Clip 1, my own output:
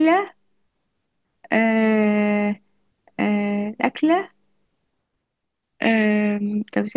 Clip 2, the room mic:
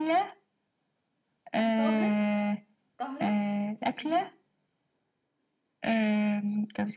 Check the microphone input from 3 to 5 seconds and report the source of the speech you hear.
both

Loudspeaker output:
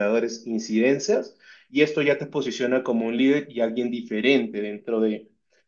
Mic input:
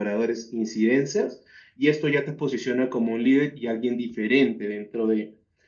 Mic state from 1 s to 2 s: echo only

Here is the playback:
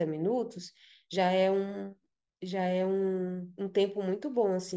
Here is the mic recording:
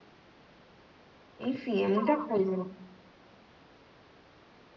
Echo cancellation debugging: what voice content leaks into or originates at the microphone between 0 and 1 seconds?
neither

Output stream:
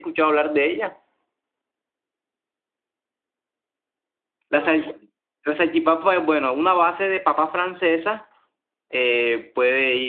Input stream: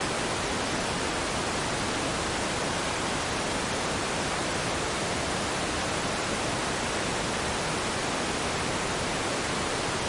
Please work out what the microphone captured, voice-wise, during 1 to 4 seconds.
neither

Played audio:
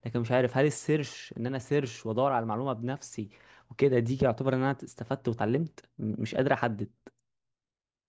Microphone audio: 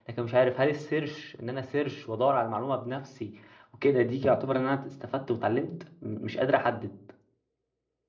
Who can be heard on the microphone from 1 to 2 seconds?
echo only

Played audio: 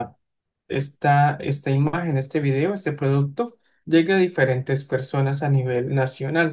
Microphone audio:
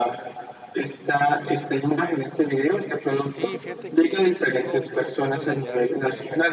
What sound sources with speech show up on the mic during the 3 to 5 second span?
both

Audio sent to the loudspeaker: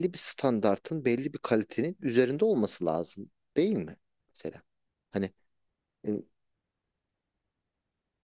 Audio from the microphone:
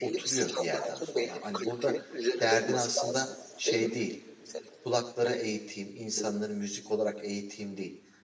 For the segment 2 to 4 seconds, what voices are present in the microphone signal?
both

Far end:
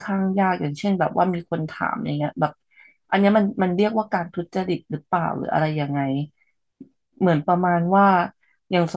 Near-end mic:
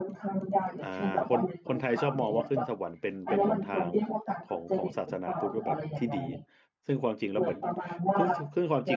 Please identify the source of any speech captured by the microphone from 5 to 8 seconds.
both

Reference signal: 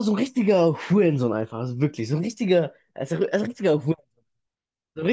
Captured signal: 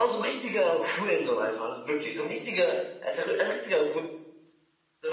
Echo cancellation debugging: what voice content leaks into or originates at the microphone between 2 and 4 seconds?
echo only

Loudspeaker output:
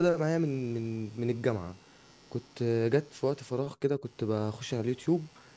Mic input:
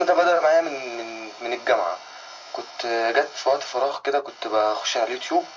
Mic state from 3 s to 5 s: echo only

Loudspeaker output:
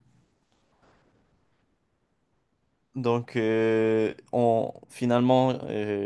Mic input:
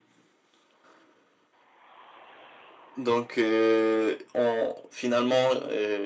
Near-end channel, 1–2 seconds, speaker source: neither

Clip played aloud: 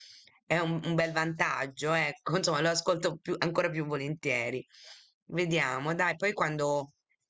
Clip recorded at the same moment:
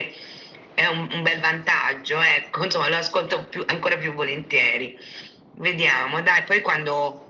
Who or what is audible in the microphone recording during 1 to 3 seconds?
echo only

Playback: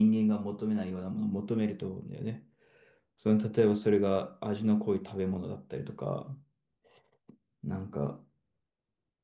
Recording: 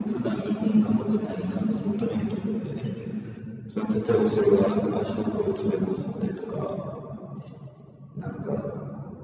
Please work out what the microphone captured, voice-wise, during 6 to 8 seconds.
echo only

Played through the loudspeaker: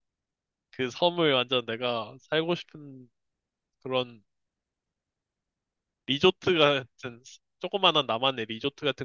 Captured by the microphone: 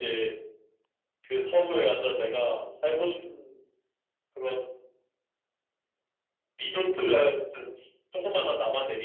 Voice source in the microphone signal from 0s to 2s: echo only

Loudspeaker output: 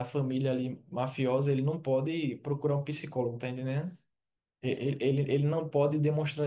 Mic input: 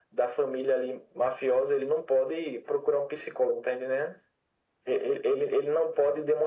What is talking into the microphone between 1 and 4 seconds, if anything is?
echo only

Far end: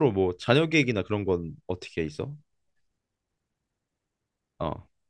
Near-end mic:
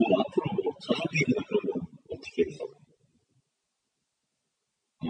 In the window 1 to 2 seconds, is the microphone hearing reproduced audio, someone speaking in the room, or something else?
echo only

